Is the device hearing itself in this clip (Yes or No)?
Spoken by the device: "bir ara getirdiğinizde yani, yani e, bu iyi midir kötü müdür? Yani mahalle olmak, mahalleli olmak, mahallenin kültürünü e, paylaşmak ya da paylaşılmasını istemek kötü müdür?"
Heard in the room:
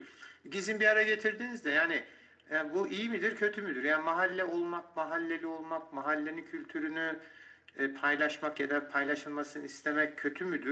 Yes